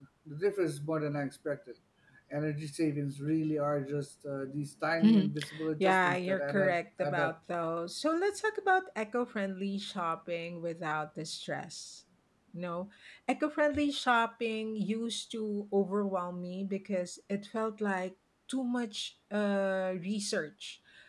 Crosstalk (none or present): present